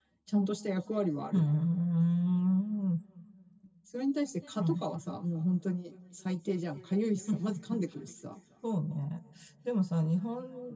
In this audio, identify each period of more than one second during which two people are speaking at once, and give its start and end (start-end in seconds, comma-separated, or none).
none